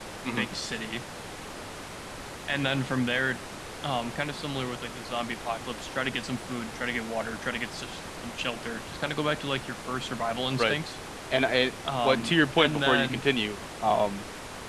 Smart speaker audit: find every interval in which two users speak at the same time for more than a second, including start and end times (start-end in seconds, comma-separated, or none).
12.0-13.2